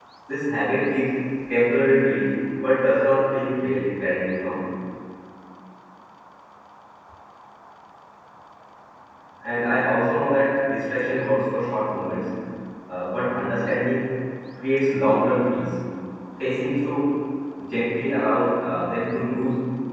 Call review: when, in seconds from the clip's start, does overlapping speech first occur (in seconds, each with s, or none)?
none